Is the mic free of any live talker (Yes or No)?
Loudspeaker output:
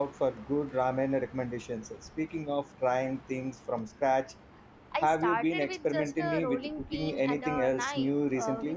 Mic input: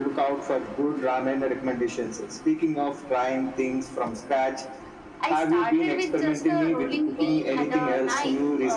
No